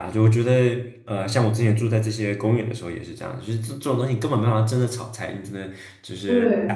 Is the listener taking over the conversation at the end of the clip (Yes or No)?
No